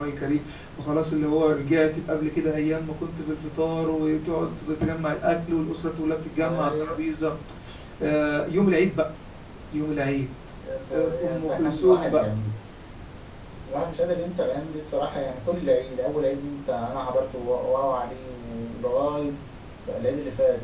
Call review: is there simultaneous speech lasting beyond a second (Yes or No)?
Yes